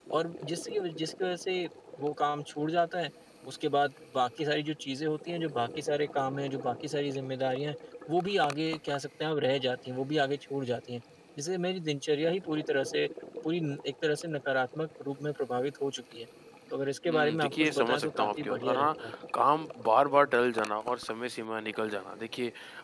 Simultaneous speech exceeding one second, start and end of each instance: 17.1-18.9

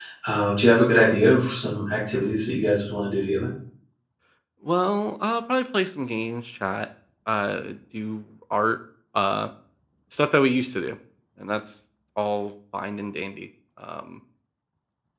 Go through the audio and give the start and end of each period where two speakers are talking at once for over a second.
none

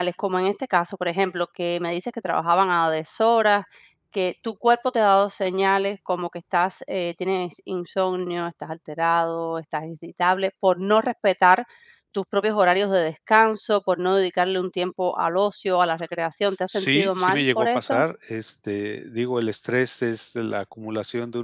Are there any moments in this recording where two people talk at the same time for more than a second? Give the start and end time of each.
16.7-18.0

